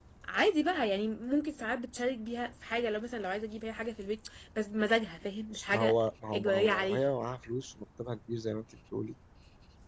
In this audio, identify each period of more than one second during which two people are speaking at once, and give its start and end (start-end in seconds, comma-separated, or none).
5.7-7.0